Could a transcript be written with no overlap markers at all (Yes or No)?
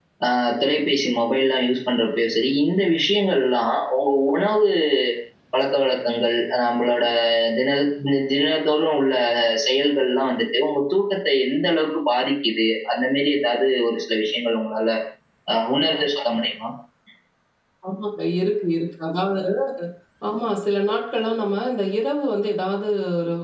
Yes